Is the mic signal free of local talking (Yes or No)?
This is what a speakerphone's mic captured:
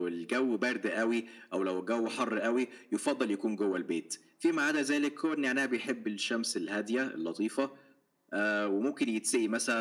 Yes